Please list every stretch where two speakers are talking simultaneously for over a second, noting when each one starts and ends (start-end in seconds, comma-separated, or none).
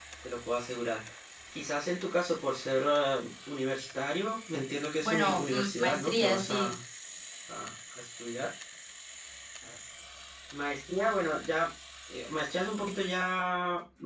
5.0-6.6